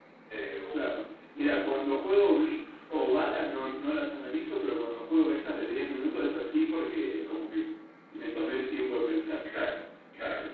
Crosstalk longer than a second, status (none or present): none